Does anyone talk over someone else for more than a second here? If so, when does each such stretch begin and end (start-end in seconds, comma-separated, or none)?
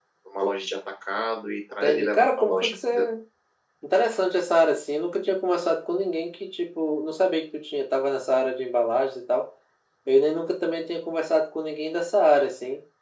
1.8-3.0